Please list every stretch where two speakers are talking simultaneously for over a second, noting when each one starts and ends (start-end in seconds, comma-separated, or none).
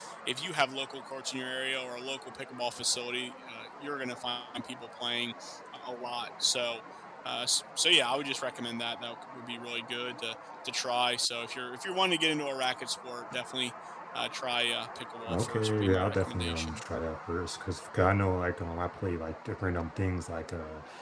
15.3-16.8